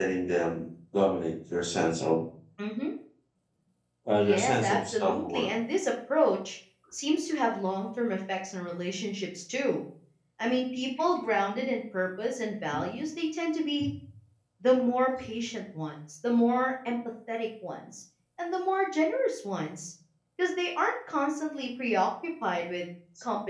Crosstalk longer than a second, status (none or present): present